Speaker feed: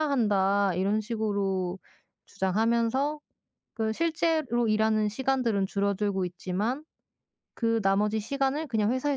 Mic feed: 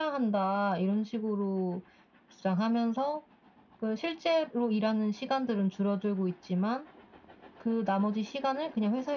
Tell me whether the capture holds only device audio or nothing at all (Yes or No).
Yes